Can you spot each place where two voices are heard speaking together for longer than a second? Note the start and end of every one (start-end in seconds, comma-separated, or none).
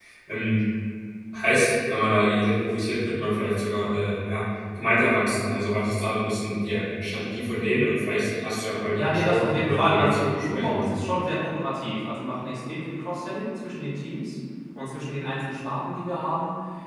8.9-11.0